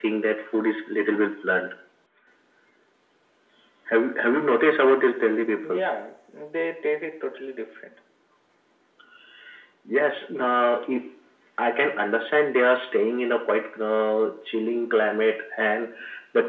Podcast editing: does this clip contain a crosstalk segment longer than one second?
No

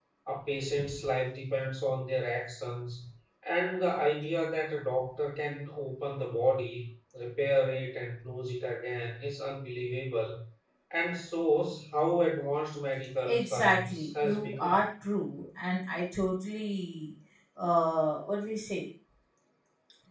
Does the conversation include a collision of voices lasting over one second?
Yes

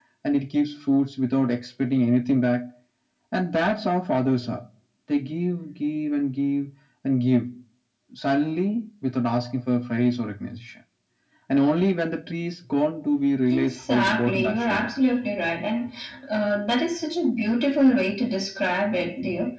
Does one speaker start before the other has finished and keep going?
Yes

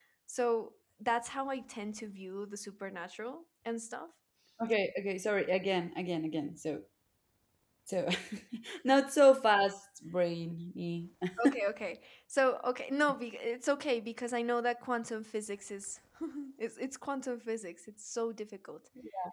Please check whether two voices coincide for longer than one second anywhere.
No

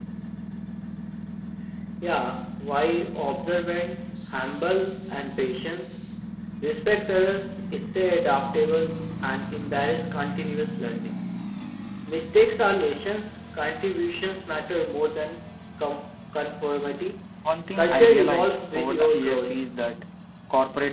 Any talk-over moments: Yes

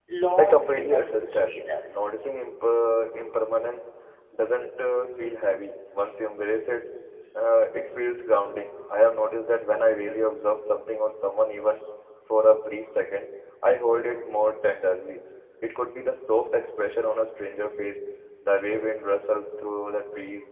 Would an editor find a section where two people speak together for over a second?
Yes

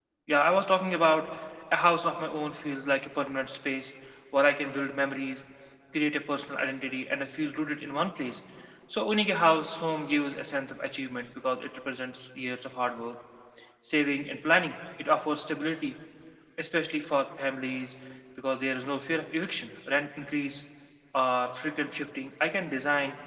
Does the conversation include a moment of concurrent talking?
No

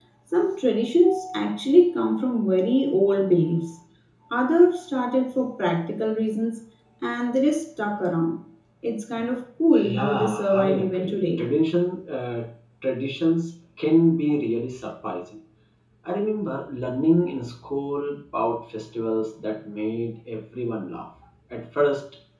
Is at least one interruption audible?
Yes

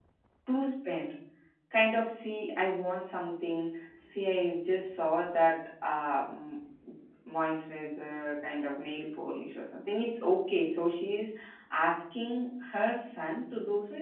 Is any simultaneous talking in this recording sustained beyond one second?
No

